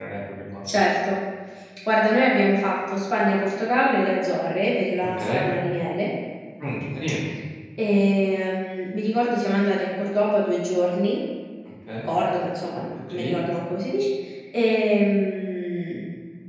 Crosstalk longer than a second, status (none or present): none